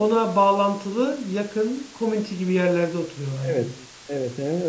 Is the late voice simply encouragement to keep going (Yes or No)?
No